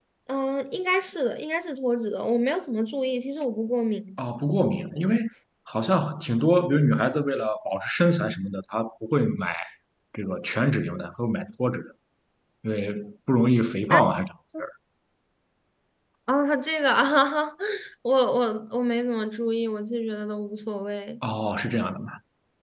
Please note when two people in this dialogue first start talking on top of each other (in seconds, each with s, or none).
none